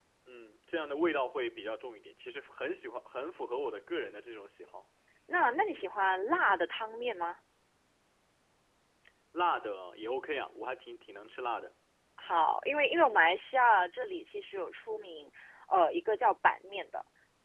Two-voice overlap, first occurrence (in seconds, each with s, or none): none